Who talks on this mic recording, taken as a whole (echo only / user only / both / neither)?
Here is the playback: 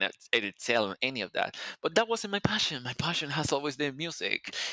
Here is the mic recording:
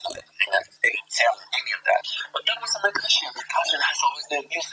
echo only